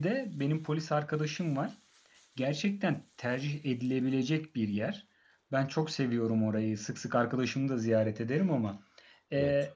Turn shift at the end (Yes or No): No